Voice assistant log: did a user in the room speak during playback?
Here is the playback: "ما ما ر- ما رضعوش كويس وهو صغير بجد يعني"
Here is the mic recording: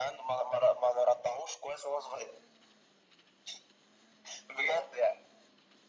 No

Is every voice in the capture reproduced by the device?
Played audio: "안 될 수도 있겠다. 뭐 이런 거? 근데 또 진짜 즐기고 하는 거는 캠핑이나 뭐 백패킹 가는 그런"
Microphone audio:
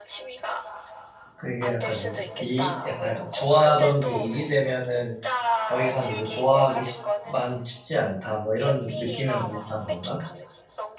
No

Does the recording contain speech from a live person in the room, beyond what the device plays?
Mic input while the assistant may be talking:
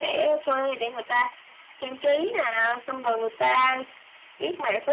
No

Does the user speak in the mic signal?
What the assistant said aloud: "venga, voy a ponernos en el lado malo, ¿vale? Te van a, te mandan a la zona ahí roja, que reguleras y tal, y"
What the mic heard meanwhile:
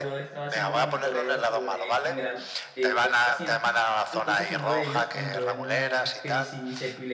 Yes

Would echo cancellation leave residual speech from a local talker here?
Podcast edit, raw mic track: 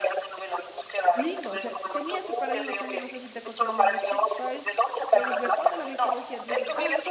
Yes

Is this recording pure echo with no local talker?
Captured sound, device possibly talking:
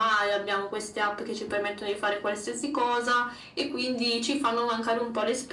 Yes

